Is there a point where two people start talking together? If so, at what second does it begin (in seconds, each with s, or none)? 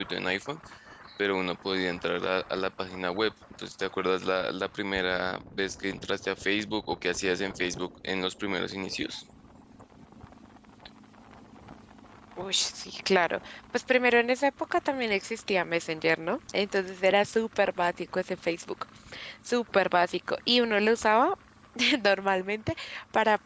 none